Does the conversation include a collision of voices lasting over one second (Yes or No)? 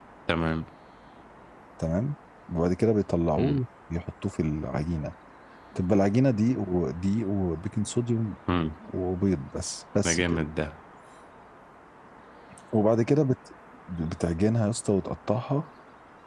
No